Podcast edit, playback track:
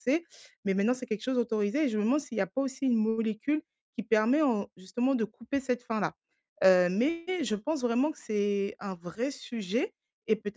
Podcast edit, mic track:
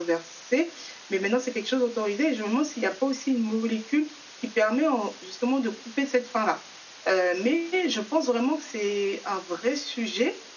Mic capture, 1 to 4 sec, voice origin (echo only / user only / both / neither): echo only